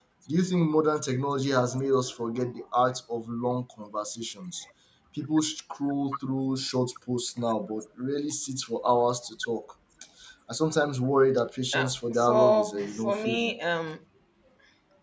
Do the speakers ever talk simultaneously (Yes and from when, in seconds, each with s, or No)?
Yes, from 11.7 s